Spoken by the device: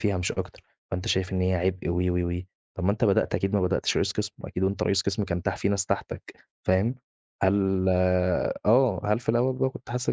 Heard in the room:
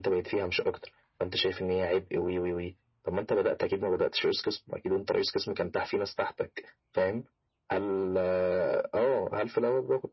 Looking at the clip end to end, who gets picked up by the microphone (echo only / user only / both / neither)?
echo only